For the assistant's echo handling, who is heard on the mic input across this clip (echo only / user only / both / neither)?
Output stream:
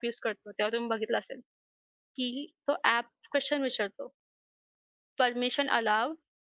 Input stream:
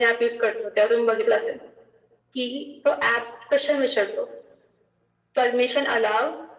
echo only